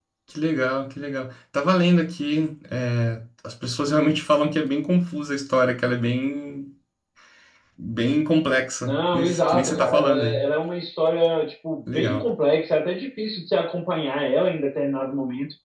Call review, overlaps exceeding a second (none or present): present